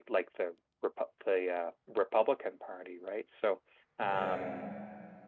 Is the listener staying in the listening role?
Yes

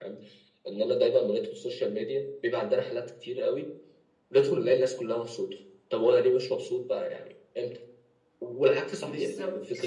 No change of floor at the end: Yes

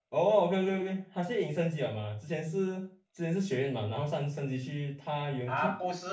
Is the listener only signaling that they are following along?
No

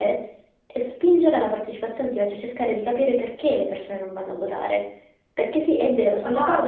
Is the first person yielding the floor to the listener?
No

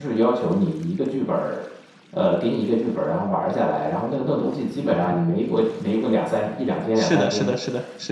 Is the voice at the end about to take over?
Yes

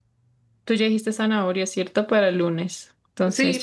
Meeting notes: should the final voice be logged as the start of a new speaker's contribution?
Yes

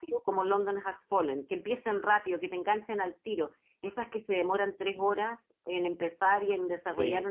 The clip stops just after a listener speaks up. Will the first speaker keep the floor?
Yes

